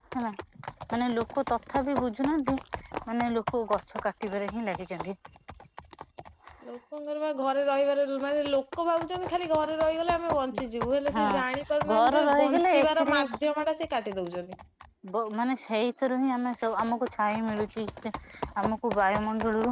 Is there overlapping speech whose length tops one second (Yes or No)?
Yes